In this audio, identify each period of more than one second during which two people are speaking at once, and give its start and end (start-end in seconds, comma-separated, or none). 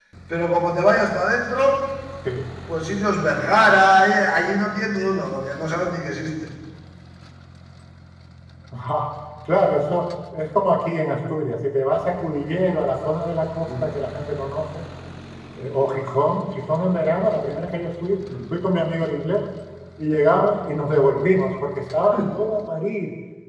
none